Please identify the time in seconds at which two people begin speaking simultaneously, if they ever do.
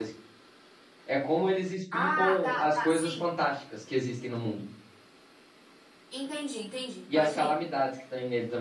2 s

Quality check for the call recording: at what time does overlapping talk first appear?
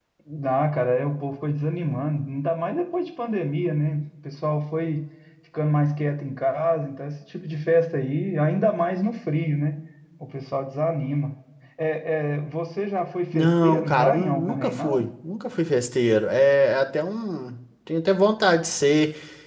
13 s

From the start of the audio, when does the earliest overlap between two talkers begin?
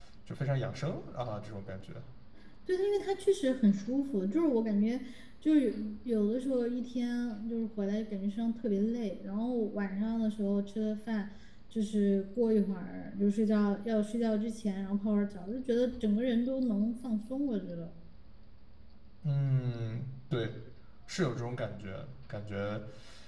none

